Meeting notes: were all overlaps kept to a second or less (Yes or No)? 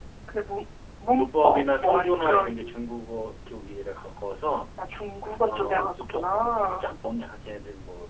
No